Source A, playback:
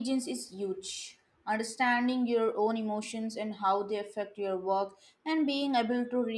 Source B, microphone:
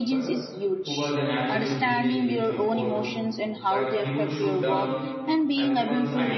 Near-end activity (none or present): present